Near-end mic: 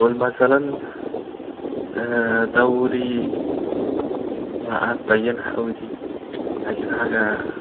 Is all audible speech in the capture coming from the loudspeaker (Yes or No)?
No